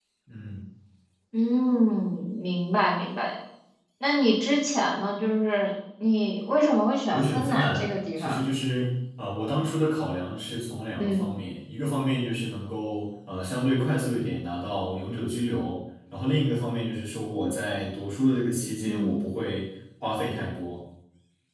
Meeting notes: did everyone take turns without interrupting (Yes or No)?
No